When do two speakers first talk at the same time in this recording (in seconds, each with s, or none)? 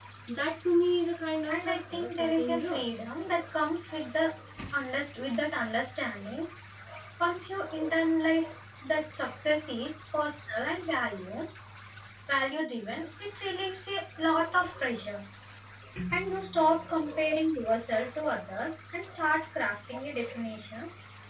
1.5 s